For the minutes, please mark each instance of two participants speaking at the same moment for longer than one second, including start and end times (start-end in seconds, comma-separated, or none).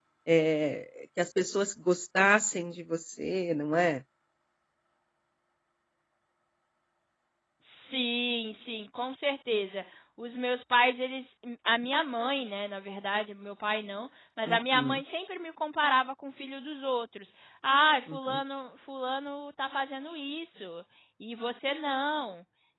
none